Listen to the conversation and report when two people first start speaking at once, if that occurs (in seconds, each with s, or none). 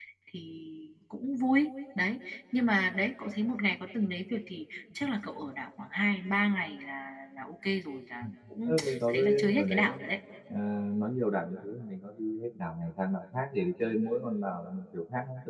8.7 s